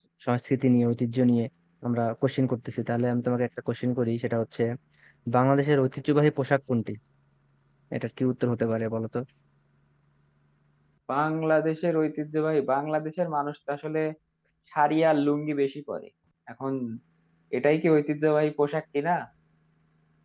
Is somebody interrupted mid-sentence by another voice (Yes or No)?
No